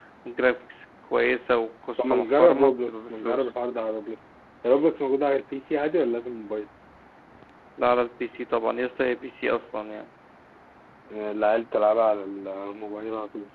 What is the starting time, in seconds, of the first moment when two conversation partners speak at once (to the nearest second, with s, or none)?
2 s